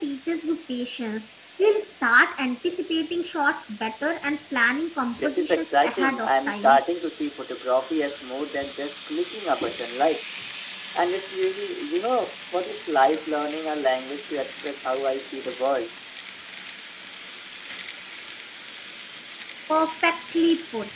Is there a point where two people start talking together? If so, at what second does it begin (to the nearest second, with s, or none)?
5 s